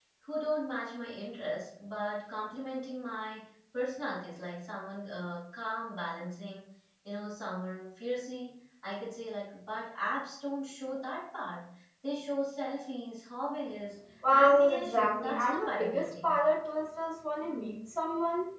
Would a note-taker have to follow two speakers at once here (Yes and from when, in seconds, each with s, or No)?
Yes, from 14.2 s